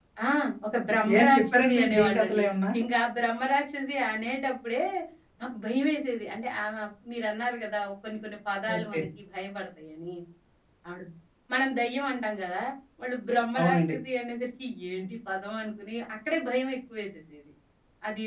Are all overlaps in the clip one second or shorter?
No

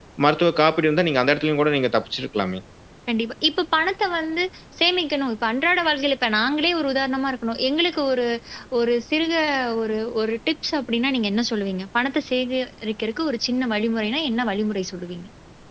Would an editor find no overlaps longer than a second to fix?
Yes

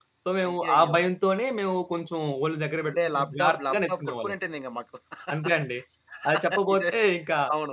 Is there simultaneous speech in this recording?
Yes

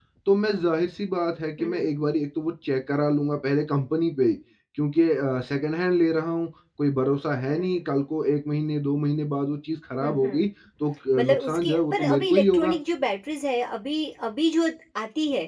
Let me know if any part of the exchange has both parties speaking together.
Yes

